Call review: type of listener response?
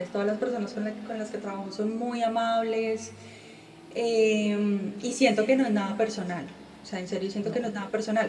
listening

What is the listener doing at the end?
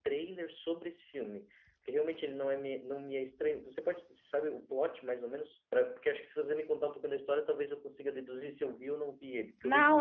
taking over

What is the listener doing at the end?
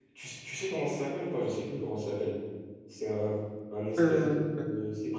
listening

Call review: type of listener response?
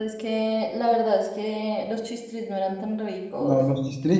taking over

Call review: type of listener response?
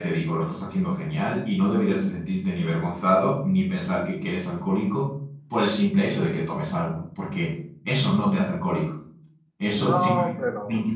listening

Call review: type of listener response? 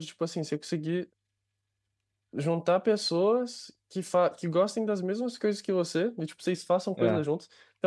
listening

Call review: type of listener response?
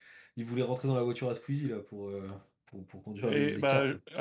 taking over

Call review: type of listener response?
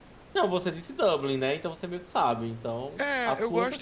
taking over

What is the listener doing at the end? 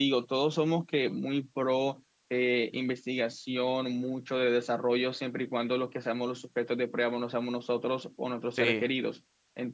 listening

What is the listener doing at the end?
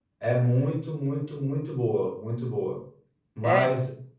listening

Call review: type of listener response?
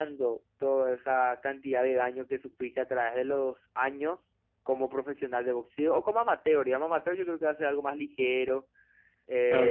taking over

